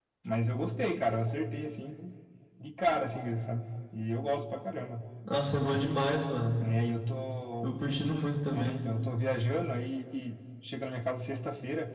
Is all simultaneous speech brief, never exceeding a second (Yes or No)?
Yes